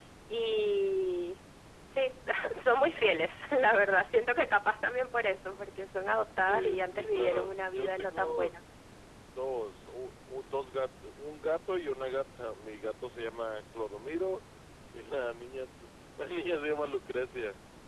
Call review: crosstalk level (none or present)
present